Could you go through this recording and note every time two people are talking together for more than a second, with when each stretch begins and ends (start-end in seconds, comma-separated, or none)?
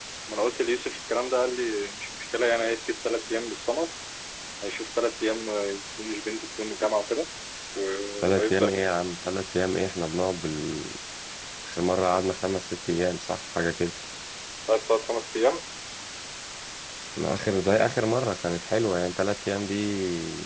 none